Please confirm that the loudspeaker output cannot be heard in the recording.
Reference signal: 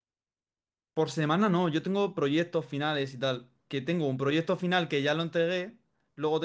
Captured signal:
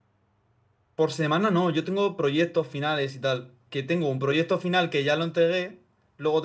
No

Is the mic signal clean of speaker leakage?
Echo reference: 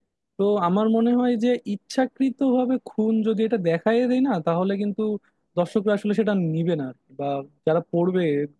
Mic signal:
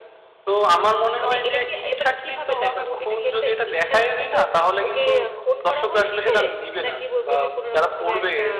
No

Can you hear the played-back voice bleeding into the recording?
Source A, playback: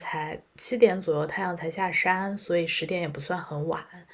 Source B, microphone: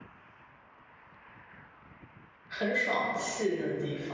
No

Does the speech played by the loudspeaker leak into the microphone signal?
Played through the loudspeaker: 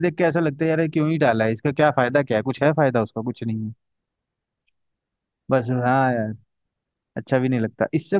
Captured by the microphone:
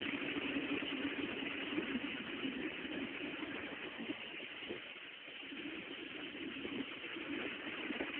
No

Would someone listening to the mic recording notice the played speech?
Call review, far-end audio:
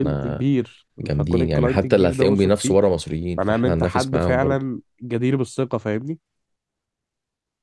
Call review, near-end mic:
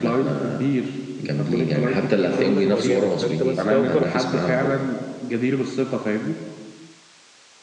Yes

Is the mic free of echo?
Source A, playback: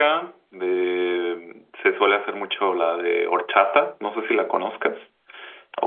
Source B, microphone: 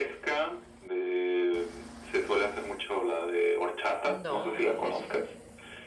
No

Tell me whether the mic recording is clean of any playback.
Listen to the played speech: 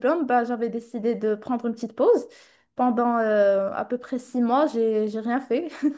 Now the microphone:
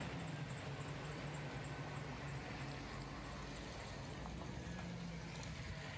Yes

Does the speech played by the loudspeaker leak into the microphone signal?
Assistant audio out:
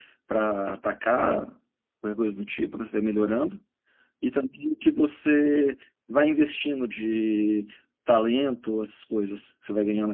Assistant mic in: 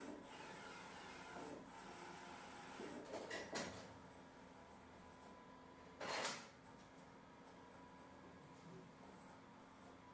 No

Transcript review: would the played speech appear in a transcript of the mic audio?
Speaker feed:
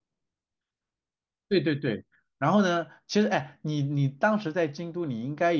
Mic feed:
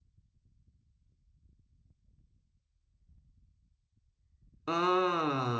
No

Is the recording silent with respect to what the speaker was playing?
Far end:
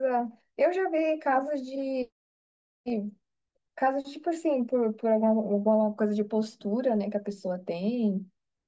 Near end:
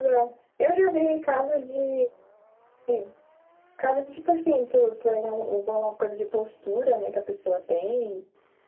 No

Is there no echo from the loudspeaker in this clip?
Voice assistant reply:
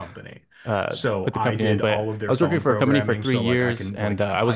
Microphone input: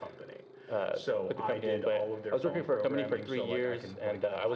No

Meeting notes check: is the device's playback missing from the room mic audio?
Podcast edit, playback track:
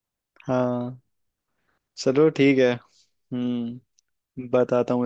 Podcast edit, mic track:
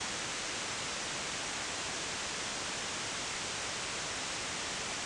Yes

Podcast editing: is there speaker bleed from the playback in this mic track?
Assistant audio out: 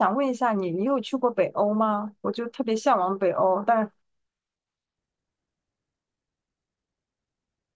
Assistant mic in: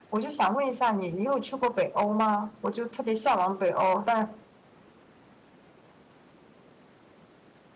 Yes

